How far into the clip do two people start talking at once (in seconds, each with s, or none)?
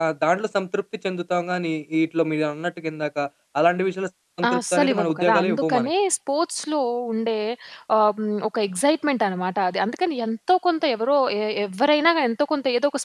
4.4 s